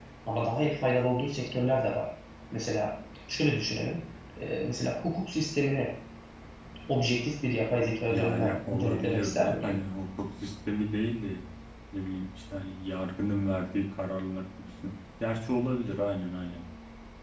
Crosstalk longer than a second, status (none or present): present